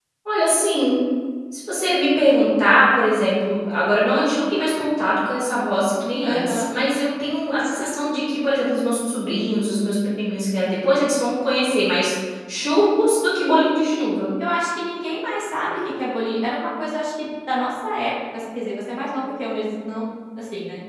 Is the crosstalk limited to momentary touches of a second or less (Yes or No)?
Yes